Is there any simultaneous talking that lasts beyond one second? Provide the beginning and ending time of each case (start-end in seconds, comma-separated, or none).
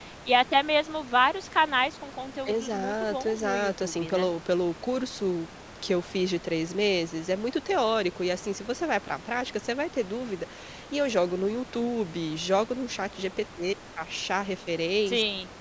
2.5-4.3